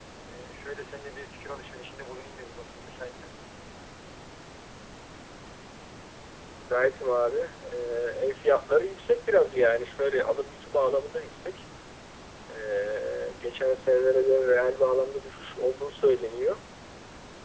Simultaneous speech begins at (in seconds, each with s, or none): none